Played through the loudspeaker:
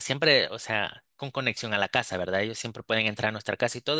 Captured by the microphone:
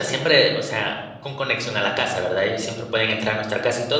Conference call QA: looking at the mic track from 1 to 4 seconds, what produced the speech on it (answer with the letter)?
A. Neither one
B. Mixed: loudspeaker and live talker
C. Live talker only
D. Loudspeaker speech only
D